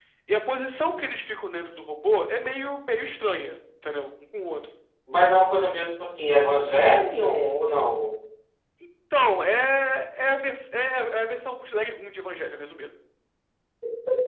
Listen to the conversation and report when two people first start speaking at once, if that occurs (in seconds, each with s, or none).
none